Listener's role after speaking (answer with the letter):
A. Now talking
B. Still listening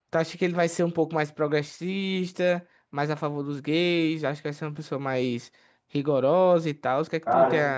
A